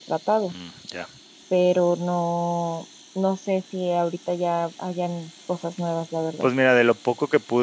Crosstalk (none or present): none